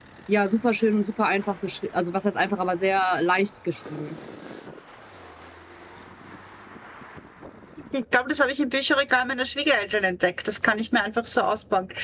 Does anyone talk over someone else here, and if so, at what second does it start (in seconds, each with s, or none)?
none